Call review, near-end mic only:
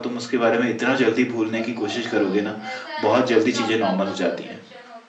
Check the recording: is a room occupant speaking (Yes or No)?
Yes